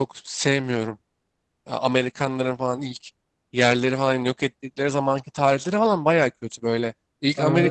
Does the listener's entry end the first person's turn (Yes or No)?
No